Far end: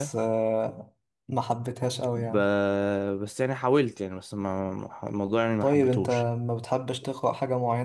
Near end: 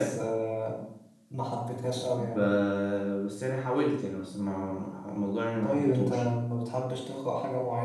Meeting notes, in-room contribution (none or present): none